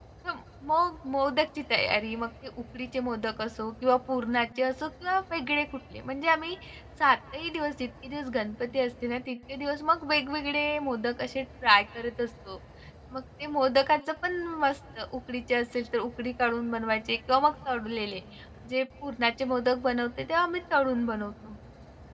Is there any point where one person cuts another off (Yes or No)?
No